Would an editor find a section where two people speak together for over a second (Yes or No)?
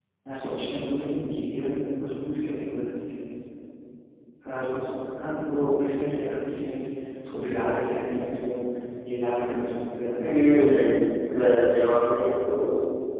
No